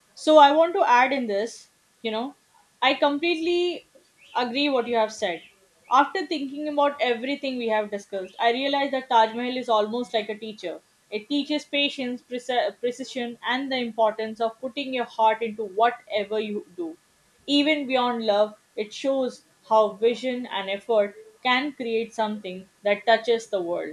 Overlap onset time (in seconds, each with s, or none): none